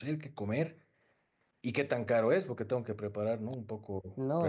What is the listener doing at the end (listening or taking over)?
taking over